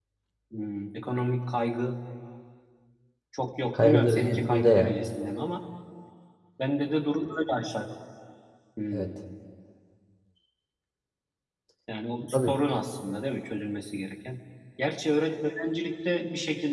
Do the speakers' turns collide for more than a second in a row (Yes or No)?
Yes